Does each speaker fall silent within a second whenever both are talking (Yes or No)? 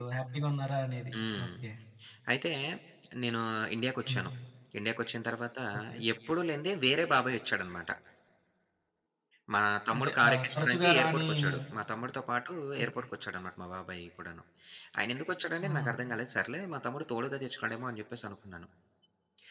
No